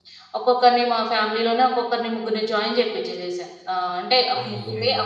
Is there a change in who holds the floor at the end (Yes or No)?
No